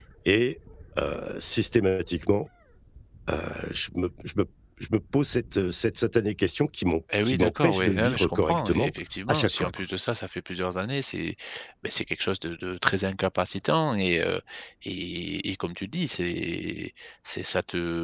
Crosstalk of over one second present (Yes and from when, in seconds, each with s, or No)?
Yes, from 7.1 s